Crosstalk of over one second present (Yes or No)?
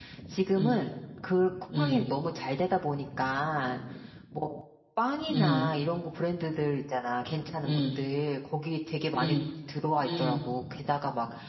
No